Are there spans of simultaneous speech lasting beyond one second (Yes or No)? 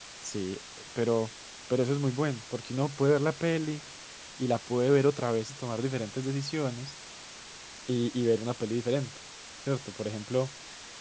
No